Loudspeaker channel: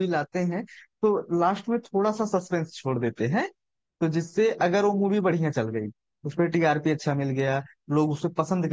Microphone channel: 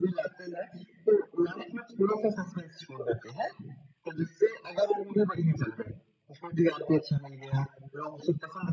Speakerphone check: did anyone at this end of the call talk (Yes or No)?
No